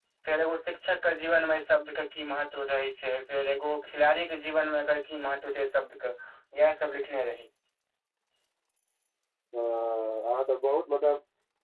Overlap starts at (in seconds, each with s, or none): none